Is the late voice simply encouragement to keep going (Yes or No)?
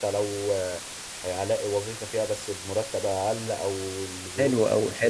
No